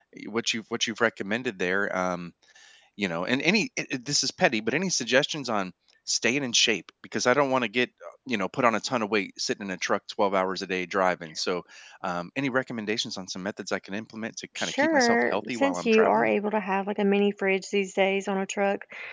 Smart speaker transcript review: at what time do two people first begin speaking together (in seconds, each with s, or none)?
14.6 s